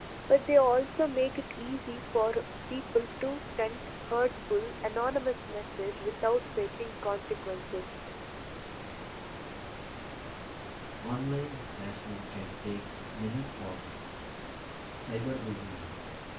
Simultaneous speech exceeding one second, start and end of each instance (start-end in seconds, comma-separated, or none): none